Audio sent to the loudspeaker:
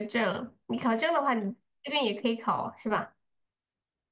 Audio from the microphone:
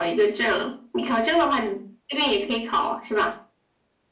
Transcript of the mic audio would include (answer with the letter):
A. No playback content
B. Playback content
B